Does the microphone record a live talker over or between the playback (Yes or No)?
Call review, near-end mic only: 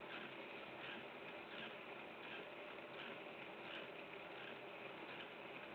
No